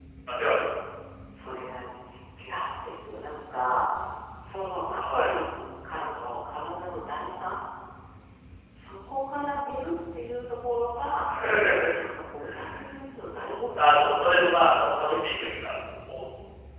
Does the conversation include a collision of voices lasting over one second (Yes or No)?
Yes